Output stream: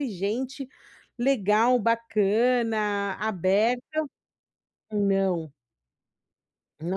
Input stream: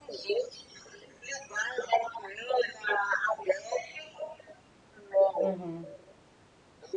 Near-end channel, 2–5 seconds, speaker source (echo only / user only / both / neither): echo only